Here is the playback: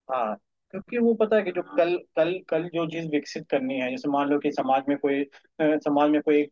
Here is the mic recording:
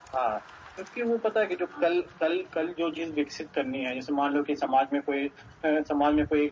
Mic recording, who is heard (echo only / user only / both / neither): echo only